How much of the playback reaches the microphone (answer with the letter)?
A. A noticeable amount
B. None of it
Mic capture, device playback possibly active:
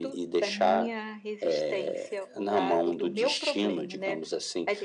A